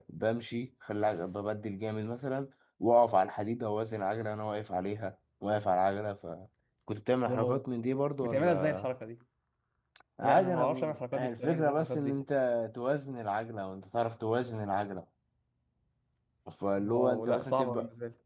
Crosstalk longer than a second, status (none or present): present